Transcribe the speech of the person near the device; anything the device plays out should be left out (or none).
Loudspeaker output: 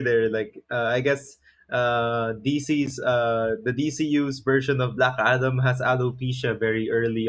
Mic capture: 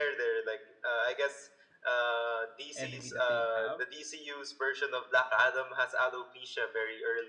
enemy that they'd have.